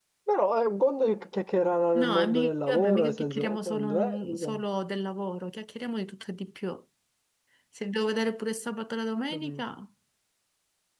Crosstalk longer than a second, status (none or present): present